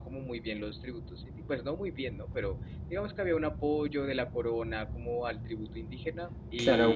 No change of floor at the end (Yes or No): No